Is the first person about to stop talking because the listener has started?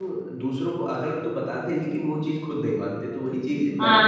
Yes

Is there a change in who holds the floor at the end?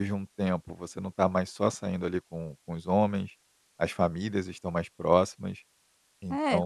Yes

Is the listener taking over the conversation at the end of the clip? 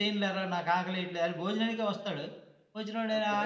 No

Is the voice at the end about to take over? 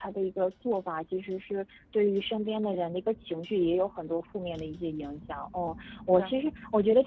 No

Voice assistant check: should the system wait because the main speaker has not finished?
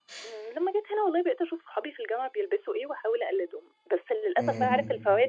Yes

